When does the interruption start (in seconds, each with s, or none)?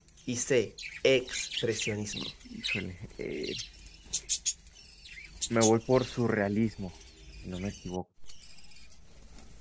none